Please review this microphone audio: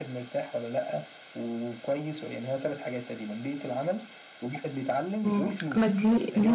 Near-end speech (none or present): present